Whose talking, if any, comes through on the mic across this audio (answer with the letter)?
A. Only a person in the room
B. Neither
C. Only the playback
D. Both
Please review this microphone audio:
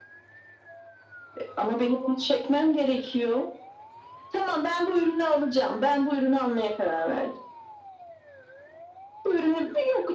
C